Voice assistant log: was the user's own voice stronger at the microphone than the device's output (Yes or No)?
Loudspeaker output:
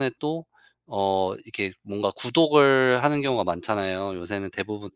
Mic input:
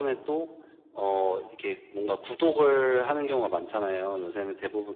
No